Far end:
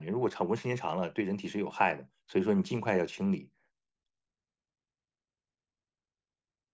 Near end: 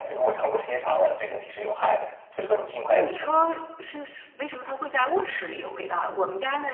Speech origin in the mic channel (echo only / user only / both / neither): both